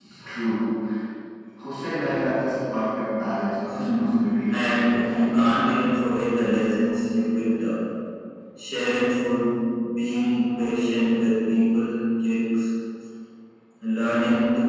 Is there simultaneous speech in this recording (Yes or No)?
Yes